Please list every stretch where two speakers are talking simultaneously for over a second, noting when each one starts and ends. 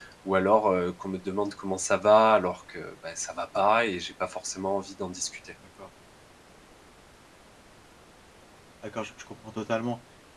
none

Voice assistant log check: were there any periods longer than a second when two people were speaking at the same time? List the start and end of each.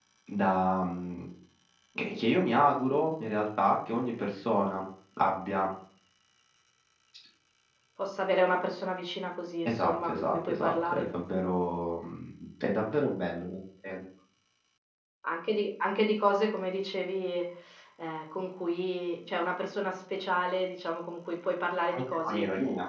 9.7-11.1

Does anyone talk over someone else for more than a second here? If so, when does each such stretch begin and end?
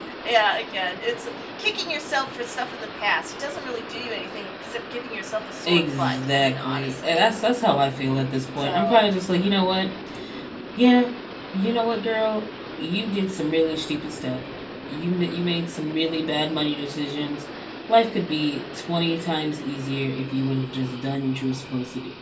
5.7-7.2

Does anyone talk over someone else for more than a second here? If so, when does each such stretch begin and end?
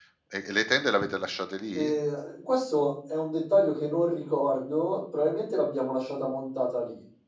none

